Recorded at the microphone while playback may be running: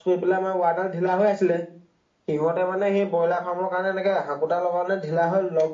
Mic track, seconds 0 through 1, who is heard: user only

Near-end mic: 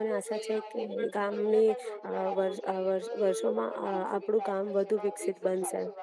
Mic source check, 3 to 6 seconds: both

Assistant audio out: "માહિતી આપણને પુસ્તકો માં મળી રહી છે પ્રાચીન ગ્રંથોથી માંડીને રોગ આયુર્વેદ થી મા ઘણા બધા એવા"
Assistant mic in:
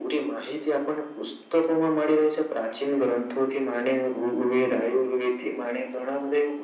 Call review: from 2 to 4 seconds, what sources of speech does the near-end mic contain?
echo only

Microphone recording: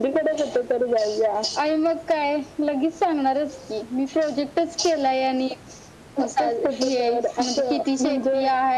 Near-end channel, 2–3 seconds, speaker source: echo only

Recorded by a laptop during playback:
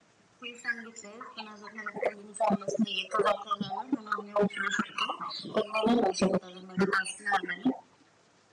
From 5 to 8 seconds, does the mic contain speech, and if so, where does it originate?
echo only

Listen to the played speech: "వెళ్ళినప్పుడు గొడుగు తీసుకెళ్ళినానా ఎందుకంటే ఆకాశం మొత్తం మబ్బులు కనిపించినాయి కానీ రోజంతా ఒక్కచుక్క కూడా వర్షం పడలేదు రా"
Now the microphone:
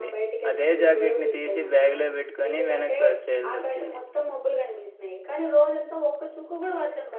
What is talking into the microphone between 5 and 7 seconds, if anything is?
echo only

